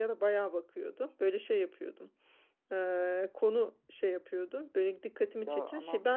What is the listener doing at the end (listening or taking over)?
listening